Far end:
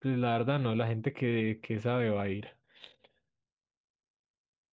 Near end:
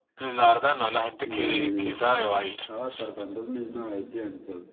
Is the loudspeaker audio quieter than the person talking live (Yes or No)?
No